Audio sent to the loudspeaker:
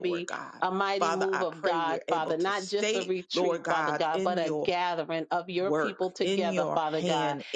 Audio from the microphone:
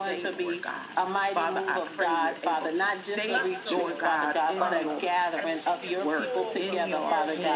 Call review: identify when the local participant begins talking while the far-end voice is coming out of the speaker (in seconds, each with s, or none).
3.1 s